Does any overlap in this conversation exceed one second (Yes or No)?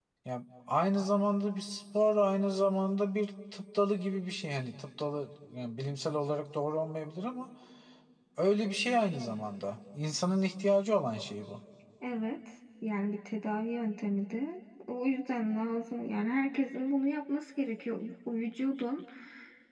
No